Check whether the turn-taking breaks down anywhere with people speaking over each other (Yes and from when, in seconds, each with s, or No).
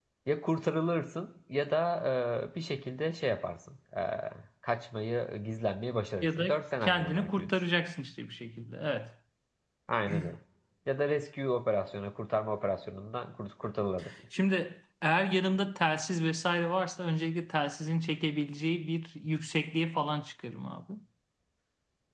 Yes, from 6.2 s